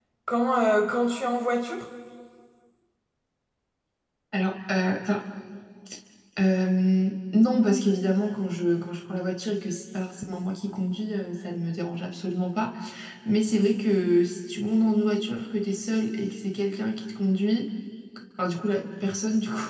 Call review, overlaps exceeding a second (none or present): none